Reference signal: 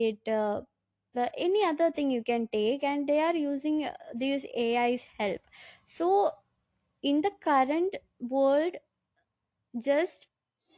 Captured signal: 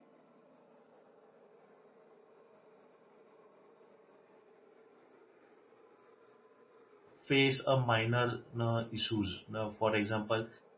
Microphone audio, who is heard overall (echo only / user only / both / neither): user only